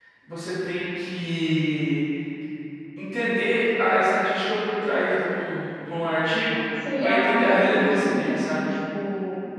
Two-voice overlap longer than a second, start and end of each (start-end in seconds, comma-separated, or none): 7.0-8.7